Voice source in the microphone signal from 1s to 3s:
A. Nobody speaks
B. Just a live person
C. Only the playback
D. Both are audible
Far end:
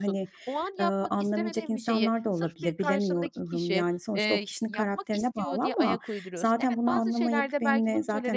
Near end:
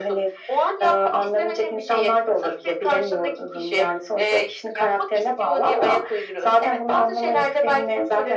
C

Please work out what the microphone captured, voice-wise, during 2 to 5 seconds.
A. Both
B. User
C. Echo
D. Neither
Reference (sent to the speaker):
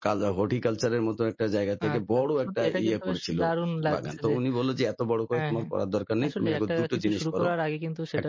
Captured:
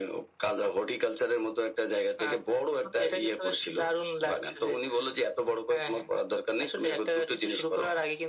C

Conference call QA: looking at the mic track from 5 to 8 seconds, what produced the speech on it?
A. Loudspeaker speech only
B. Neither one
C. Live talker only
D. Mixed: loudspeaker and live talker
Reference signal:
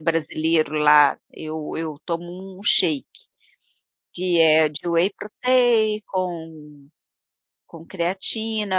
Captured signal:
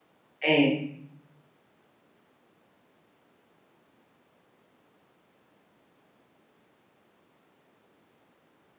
B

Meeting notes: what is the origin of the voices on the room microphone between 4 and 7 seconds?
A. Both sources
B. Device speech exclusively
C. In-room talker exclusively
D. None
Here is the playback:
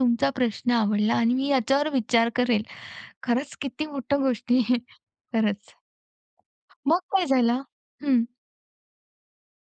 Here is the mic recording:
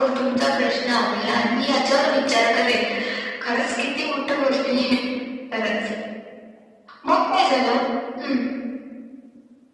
B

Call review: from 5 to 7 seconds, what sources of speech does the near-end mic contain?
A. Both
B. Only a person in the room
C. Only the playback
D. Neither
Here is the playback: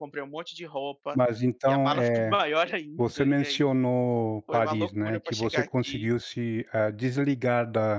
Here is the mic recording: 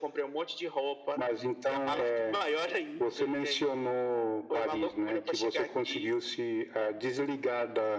C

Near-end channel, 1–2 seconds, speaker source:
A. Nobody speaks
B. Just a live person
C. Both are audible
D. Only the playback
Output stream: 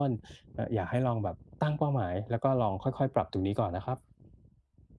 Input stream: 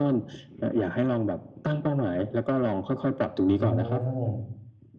D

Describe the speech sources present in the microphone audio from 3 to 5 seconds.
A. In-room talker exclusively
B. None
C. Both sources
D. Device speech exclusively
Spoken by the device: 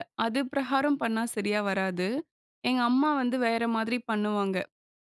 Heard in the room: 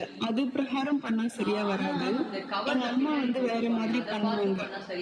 C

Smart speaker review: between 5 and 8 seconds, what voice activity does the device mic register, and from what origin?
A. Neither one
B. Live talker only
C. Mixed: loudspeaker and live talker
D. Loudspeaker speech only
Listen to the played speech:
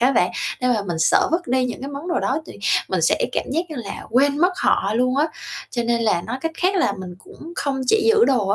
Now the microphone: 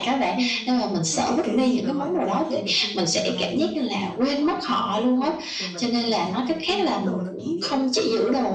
C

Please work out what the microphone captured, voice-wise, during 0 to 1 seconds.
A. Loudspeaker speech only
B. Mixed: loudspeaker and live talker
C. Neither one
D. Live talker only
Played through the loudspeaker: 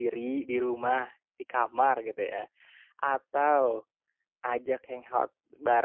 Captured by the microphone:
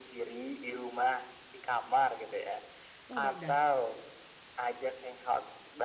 A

